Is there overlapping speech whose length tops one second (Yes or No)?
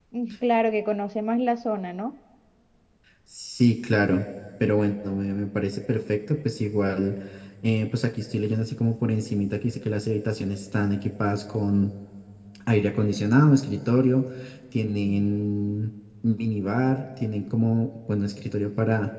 No